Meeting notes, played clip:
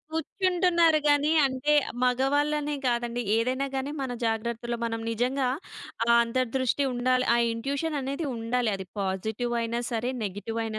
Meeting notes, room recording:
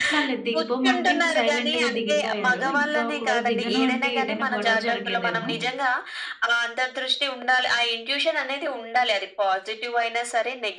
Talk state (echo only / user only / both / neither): both